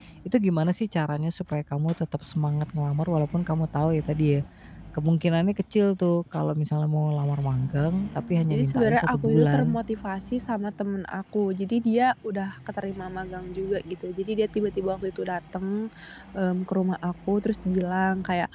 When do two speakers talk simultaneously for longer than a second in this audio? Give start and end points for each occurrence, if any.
8.5-9.8

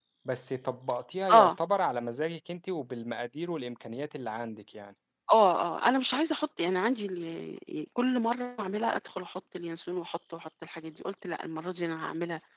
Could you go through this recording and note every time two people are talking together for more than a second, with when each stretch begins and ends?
none

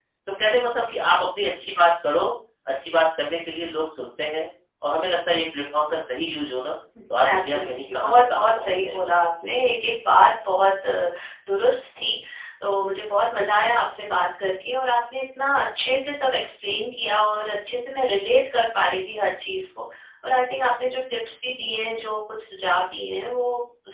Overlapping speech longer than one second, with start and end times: 7.3-9.1

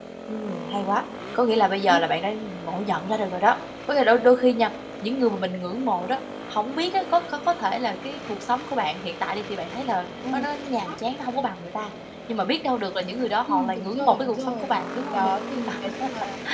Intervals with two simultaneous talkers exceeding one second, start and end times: 13.5-14.7

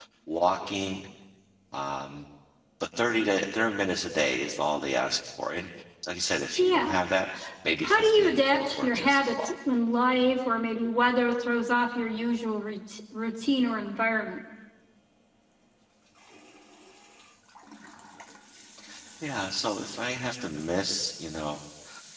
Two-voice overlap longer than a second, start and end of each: 7.8-9.5

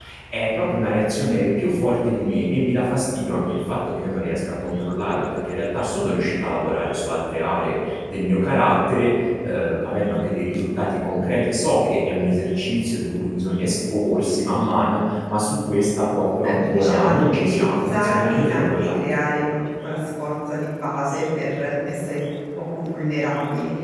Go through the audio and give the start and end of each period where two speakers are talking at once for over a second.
16.4-19.3

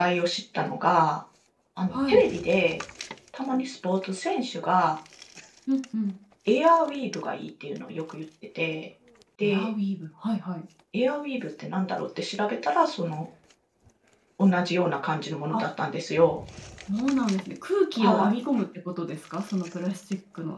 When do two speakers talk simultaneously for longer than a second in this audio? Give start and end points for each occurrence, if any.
none

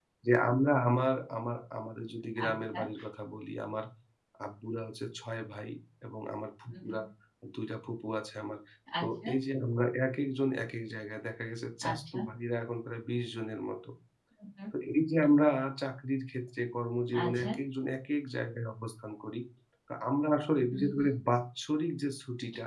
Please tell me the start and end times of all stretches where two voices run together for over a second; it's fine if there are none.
none

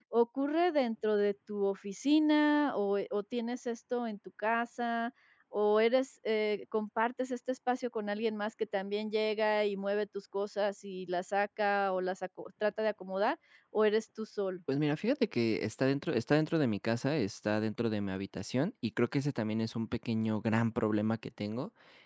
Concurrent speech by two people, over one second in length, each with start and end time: none

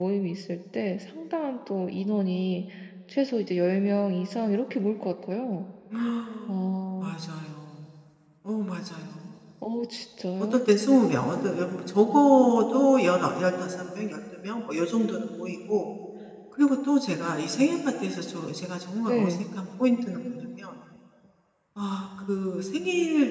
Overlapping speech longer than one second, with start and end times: none

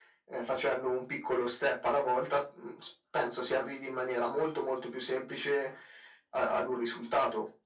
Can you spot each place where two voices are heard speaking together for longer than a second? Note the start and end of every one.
none

